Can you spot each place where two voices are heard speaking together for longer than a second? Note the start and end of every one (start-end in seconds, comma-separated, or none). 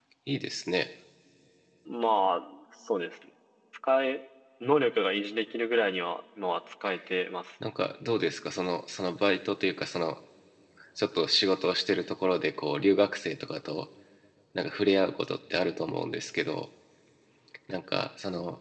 none